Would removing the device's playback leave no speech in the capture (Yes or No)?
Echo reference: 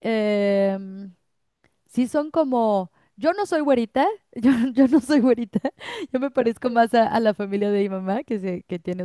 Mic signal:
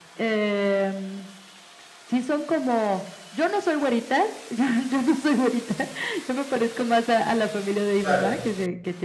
No